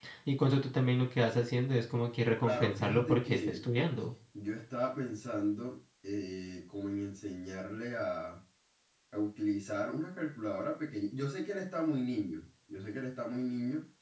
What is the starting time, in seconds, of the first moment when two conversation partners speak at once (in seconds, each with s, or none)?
2.4 s